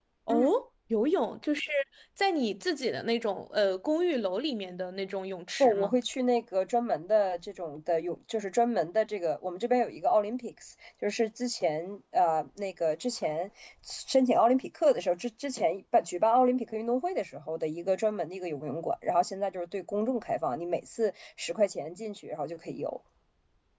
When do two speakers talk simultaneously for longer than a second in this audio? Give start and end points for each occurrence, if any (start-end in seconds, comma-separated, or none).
none